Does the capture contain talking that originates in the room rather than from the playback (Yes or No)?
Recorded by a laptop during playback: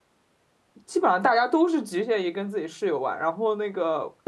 Yes